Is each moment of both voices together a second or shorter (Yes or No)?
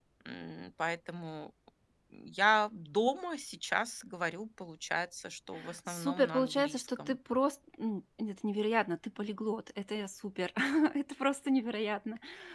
No